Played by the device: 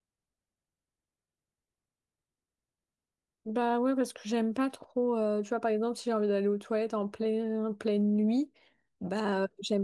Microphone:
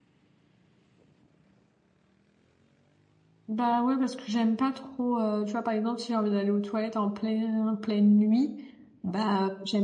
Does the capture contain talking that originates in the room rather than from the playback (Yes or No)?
No